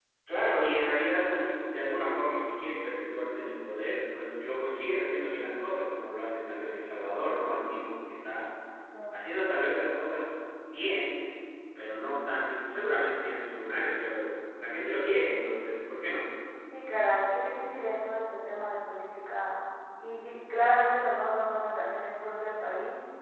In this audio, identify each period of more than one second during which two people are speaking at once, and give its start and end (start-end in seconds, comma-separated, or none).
none